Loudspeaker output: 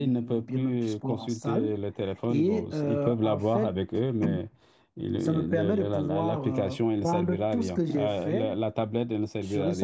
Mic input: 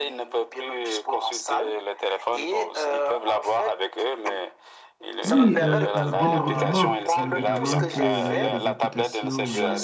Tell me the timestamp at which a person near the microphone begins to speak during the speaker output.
5.2 s

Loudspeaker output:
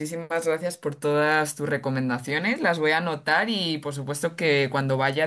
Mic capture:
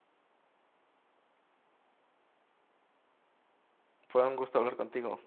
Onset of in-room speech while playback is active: 4.1 s

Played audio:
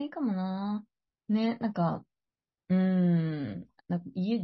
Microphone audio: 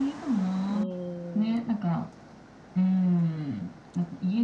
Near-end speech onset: 0.7 s

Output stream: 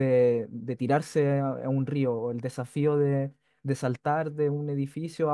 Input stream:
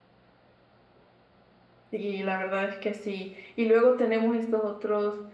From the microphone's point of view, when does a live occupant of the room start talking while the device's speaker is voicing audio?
1.9 s

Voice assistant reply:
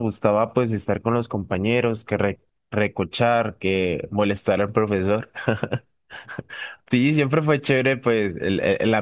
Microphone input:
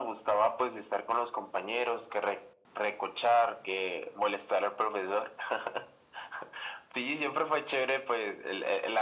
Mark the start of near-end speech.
none

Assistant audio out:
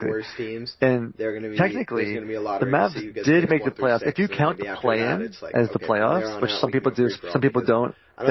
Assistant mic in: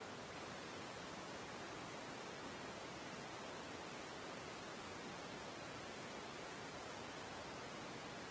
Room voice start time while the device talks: none

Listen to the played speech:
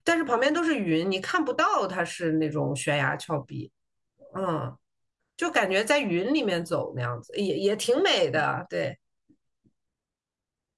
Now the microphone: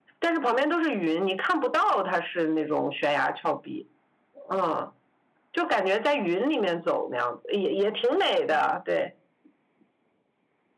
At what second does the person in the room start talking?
none

